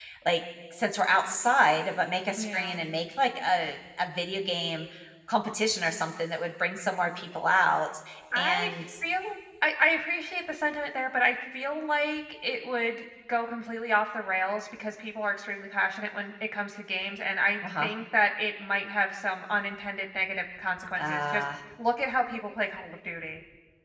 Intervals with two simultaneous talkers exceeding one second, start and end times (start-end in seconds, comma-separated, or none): none